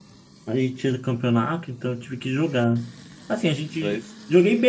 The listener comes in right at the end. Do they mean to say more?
No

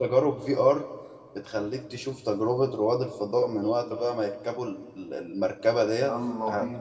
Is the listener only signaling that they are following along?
Yes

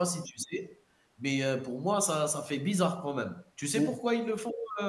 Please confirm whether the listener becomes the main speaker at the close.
No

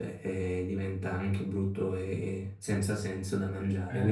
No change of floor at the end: No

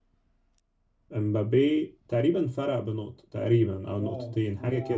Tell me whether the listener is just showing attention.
No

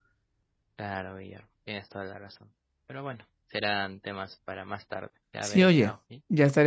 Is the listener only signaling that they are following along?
No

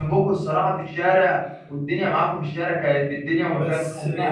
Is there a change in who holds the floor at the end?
No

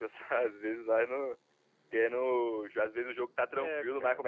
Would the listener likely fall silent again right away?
Yes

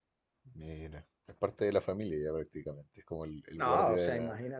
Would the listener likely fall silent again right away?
No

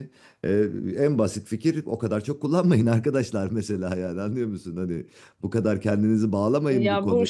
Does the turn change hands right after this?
Yes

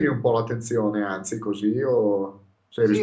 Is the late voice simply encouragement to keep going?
No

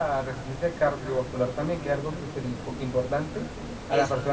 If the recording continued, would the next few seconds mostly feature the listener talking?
No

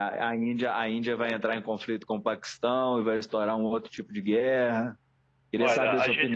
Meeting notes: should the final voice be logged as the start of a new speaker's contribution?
Yes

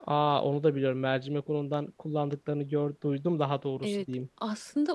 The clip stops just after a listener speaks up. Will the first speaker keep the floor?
No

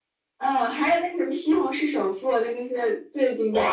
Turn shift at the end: Yes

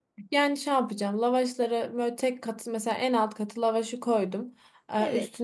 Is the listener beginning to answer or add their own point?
No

